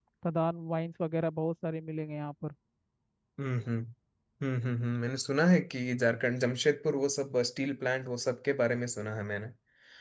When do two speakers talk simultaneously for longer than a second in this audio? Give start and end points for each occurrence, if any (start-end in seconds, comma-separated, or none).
none